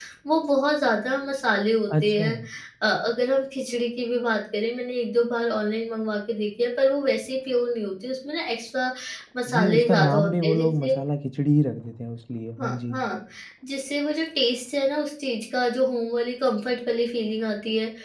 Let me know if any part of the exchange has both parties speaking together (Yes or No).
Yes